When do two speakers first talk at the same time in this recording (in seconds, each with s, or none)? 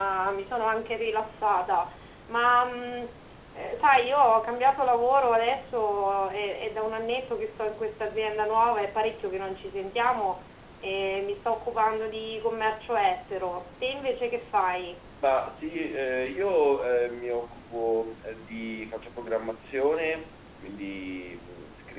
none